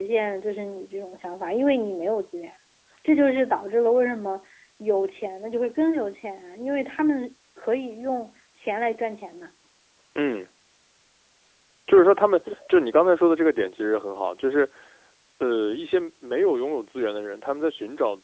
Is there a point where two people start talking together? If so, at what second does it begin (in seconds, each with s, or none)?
none